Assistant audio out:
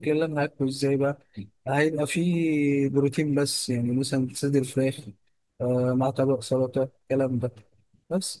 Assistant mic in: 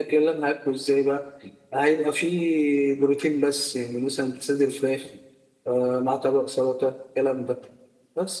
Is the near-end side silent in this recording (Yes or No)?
Yes